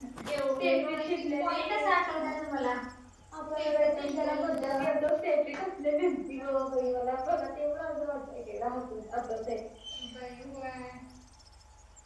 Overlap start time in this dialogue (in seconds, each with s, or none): 0.6 s